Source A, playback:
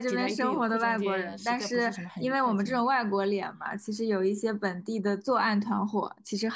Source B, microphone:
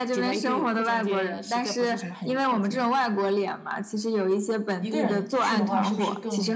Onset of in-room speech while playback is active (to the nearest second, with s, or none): 5 s